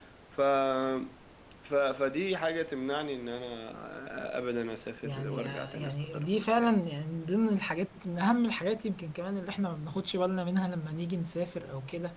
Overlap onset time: 5.0 s

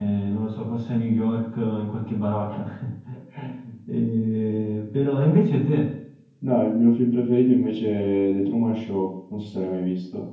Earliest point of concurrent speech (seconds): none

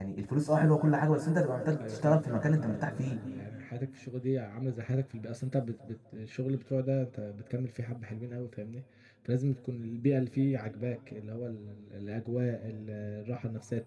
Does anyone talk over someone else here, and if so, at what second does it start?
1.8 s

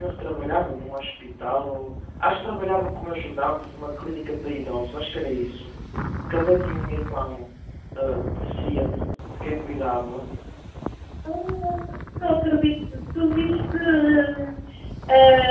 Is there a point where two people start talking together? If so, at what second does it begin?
none

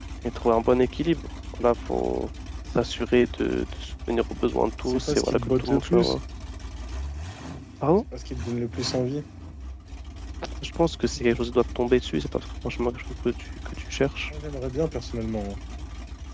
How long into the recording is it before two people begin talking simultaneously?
4.9 s

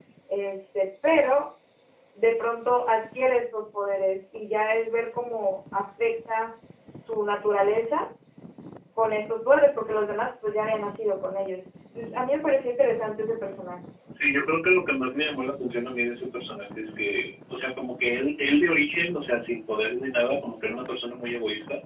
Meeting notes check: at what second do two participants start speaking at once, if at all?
none

